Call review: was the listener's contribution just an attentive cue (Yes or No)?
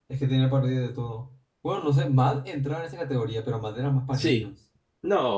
No